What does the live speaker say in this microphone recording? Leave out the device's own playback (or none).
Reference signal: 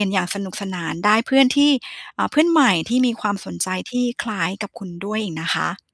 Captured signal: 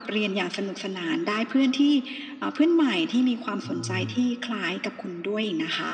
อืม